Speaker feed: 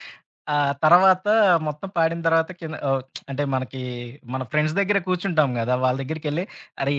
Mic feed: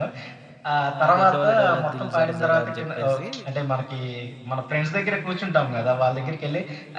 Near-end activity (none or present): present